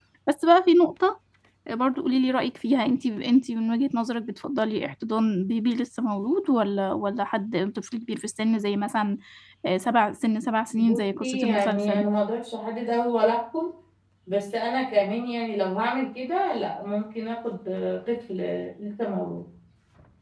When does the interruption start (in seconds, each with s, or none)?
10.8 s